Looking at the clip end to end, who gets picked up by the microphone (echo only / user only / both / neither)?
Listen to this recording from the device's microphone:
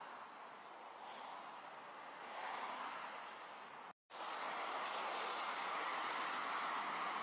neither